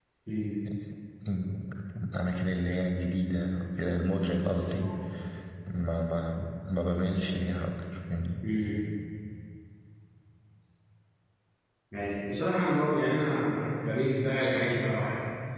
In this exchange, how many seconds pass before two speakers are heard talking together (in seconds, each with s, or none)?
none